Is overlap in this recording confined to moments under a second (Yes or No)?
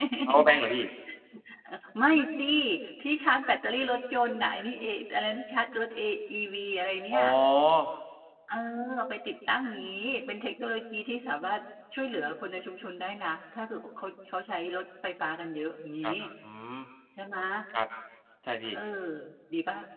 Yes